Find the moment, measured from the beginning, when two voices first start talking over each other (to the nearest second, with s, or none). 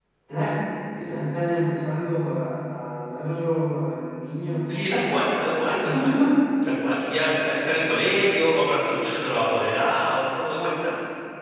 5 s